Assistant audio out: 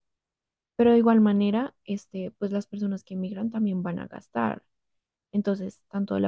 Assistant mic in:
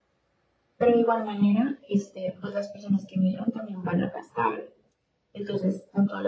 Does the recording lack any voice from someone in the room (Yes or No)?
Yes